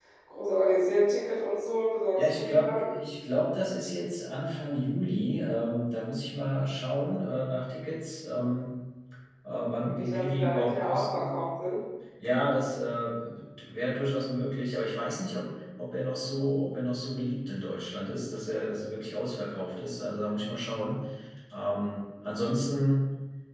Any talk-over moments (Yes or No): Yes